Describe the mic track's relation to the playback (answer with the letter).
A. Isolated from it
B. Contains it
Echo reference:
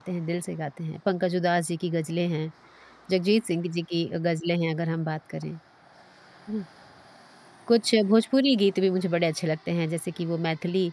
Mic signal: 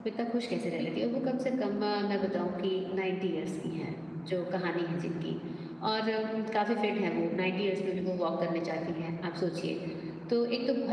A